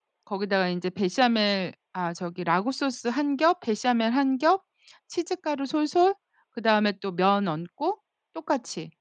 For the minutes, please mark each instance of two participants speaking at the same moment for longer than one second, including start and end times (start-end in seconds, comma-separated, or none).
none